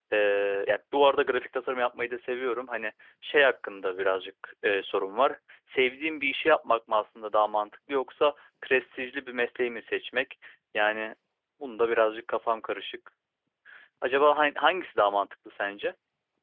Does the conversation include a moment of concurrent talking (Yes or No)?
No